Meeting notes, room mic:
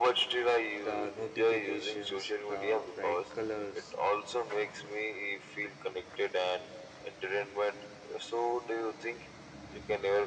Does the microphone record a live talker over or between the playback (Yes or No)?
Yes